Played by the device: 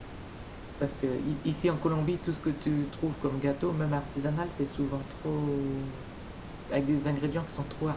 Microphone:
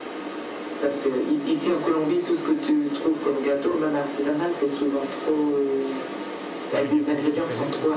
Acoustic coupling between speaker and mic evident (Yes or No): Yes